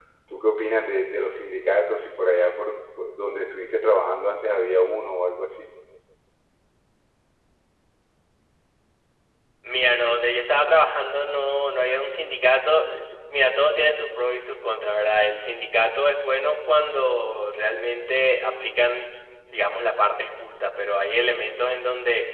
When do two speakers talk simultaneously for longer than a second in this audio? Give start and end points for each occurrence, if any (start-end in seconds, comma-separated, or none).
none